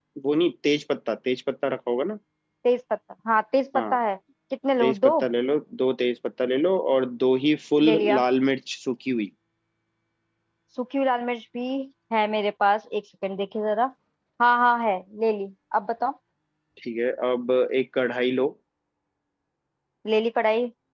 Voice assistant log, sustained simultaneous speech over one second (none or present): none